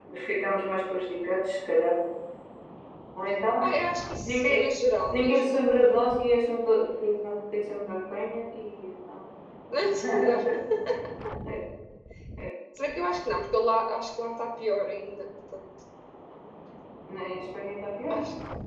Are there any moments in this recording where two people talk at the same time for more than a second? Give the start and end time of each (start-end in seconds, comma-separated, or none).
none